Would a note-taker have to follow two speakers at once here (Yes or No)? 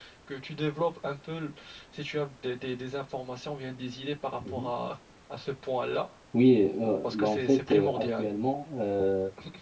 Yes